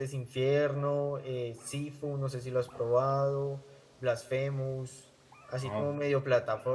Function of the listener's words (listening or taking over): listening